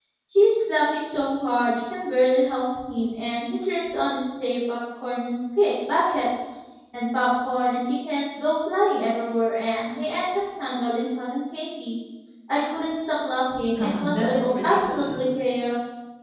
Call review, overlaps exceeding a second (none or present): present